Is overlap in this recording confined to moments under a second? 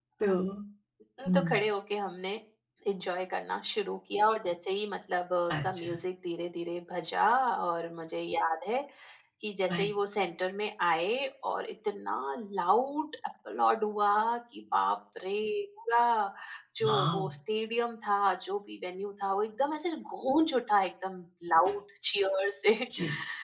Yes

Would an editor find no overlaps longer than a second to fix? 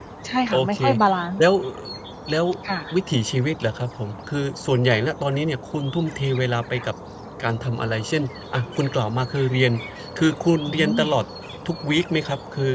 Yes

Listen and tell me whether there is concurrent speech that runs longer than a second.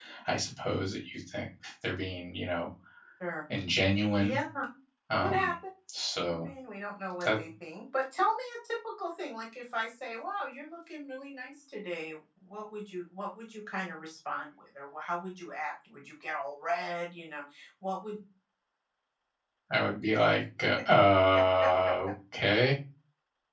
No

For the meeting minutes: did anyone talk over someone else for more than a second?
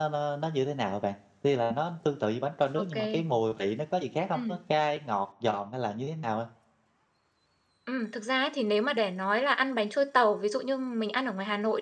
No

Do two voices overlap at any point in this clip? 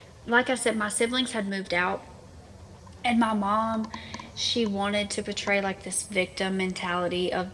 No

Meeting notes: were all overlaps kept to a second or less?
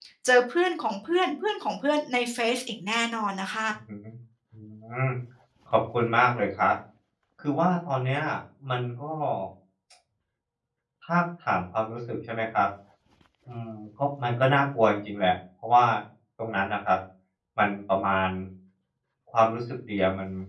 Yes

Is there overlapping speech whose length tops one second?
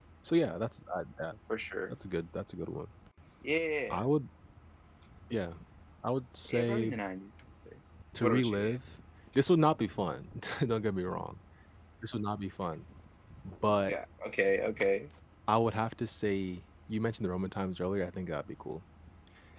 No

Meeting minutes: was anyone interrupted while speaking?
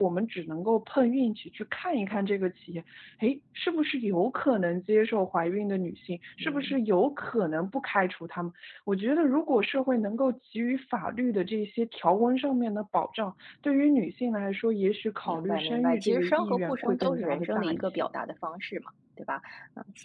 Yes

